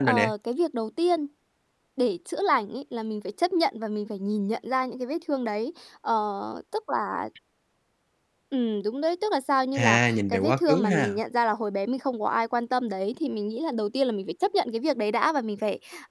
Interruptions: present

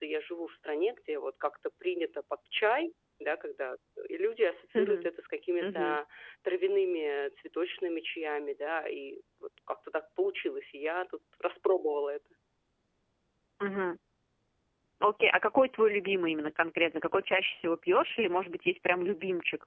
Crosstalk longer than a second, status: none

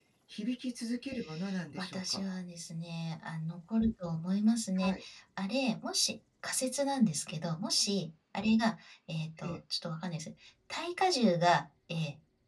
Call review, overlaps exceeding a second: none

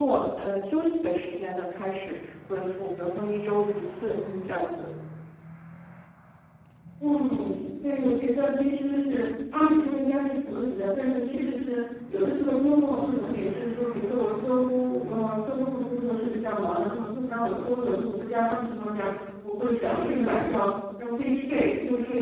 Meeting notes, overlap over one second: none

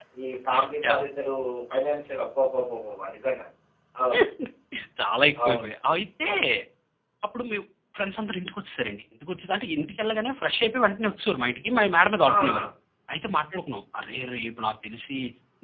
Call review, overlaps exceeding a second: none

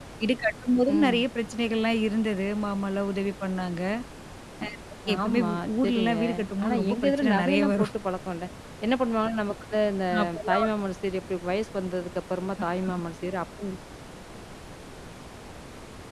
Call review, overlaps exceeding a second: present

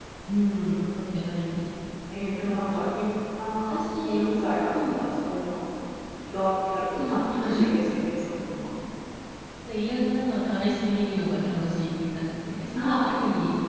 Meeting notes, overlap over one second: present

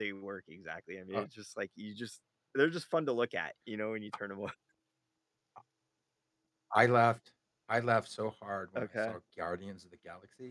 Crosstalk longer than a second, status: none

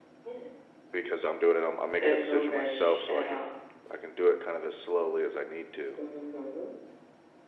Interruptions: present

